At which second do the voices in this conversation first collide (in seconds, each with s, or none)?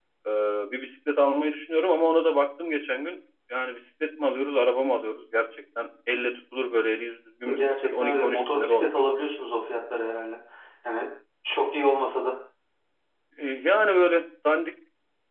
7.5 s